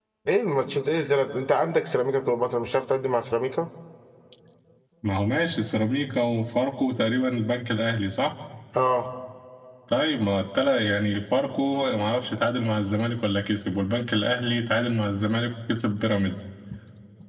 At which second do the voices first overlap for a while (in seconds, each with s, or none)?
none